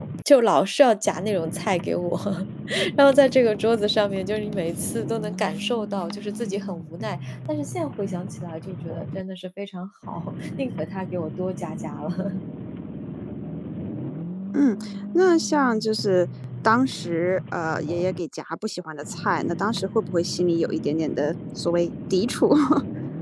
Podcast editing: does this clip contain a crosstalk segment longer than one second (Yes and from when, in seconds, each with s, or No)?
No